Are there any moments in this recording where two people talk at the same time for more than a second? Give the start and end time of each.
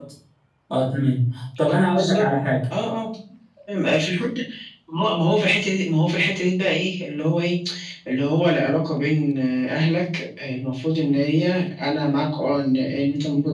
none

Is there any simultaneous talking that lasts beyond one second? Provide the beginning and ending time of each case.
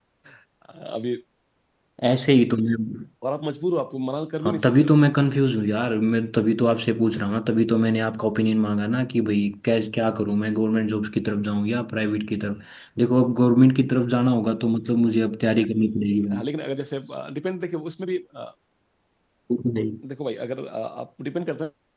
none

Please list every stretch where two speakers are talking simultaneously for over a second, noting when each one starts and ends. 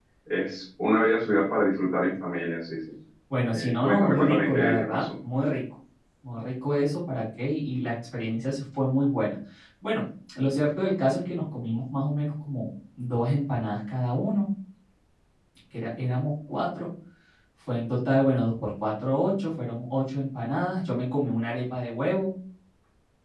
3.5-5.1

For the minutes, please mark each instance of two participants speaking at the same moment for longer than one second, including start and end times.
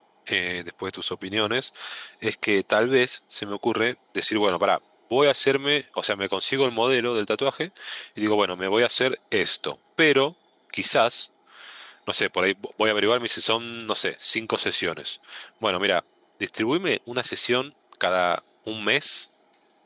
none

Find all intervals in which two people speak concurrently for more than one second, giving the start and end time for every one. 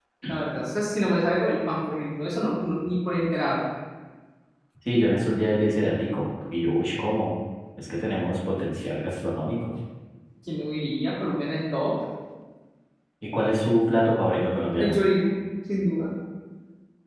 none

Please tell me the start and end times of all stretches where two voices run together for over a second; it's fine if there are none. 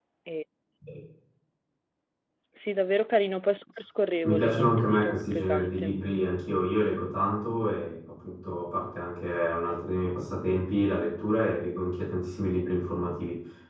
4.2-6.0

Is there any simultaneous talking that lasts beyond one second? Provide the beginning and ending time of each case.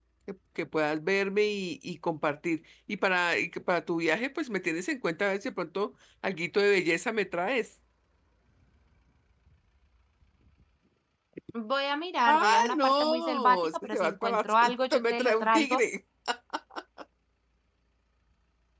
12.3-15.8

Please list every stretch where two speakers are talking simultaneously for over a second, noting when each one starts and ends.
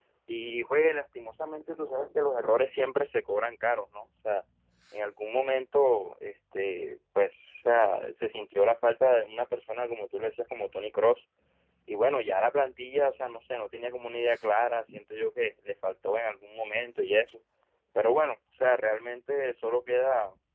none

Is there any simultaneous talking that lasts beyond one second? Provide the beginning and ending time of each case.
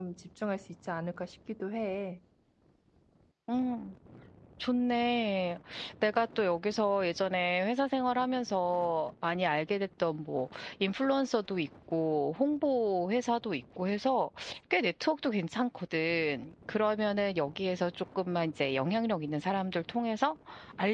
none

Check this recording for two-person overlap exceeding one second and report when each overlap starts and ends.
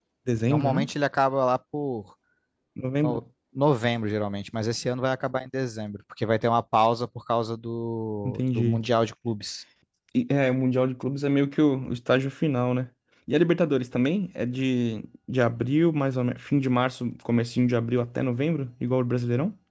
none

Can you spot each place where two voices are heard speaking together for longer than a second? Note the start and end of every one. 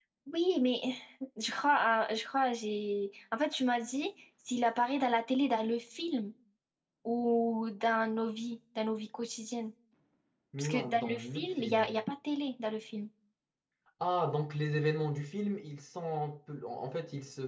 10.6-12.0

